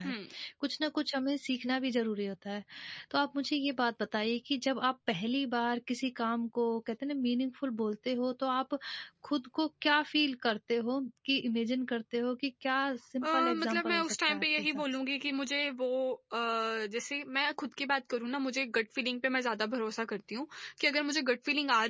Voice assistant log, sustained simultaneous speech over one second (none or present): present